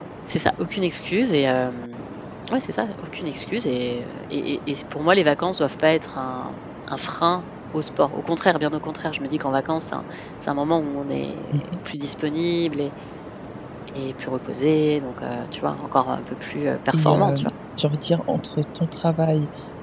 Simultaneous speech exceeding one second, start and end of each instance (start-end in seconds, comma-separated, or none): none